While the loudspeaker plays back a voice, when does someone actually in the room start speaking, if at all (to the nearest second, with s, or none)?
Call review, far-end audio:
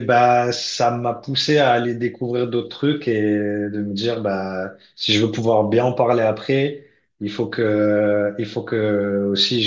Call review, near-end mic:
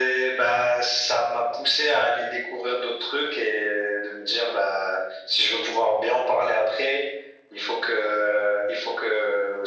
none